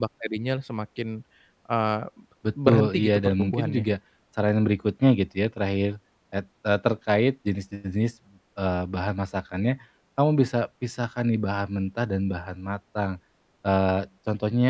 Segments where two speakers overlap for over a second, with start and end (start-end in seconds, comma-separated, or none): 2.7-3.9